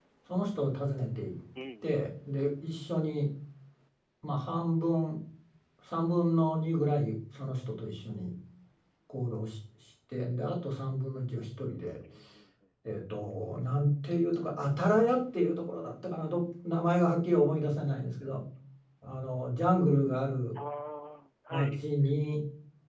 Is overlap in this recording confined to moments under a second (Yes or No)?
Yes